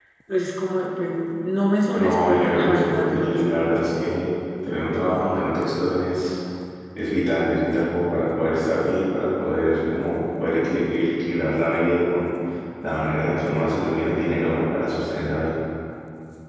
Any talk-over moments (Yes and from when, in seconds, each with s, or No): Yes, from 2.0 s